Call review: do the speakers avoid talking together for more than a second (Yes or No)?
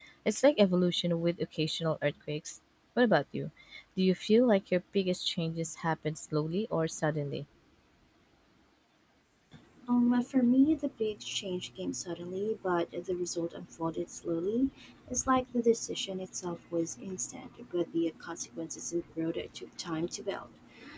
Yes